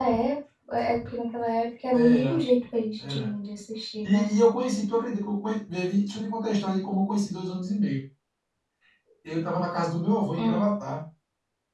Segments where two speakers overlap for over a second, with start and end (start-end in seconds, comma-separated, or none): none